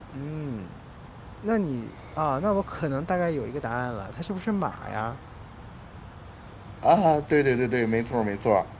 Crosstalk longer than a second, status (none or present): none